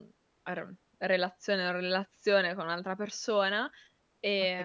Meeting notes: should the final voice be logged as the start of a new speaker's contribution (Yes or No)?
Yes